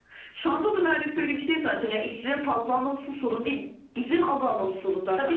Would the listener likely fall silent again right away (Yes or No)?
No